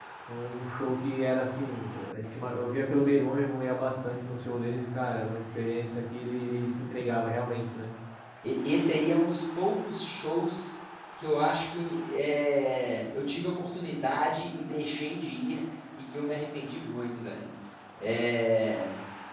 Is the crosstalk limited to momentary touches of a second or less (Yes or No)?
Yes